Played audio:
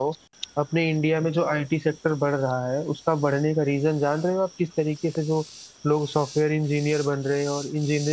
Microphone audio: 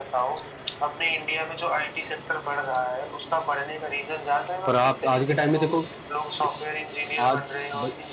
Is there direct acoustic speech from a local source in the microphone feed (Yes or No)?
Yes